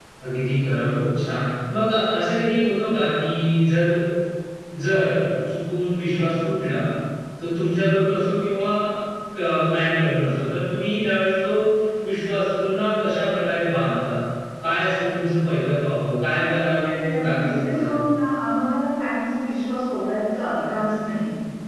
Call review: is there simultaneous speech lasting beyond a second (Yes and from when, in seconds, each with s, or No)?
Yes, from 16.2 s